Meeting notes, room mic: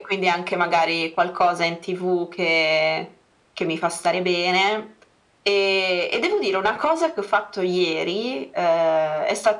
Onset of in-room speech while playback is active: none

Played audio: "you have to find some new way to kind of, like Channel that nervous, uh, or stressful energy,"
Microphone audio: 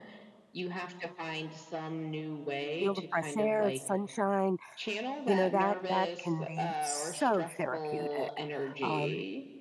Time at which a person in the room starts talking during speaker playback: 2.8 s

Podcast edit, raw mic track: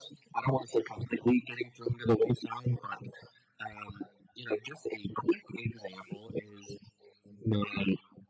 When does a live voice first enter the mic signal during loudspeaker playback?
none

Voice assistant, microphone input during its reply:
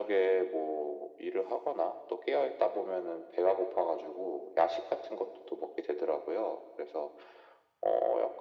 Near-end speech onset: none

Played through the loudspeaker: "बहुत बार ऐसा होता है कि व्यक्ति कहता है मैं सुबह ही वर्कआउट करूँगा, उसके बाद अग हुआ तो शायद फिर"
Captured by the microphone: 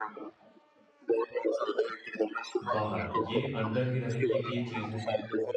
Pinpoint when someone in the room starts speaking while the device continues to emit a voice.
2.6 s

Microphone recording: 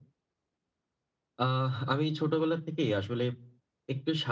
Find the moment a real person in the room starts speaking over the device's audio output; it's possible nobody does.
none

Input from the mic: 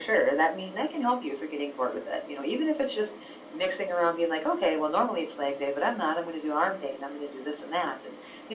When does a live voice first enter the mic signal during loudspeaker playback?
none

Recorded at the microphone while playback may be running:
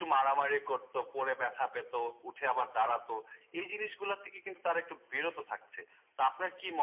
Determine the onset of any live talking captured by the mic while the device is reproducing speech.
none

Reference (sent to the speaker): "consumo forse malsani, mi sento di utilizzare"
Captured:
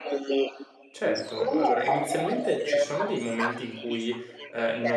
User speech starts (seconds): 0.9 s

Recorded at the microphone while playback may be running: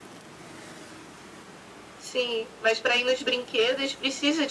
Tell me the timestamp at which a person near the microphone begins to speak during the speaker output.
none

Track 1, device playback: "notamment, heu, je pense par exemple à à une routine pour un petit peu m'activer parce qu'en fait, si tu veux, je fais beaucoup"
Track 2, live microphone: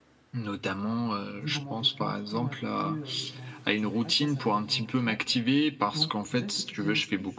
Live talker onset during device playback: 1.3 s

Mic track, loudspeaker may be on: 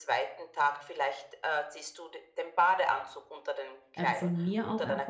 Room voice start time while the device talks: 4.0 s

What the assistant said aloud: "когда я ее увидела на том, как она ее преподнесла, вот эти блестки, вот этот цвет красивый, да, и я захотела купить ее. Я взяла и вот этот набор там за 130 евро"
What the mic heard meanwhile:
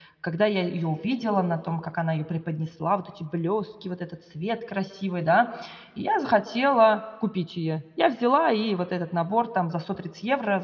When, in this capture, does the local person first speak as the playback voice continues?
none

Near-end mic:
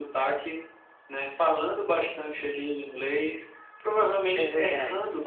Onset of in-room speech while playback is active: 4.4 s

